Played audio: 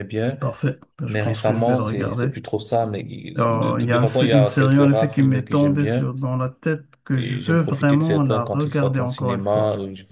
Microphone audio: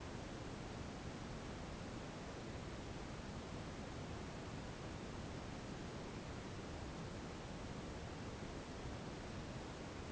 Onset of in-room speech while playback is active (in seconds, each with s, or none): none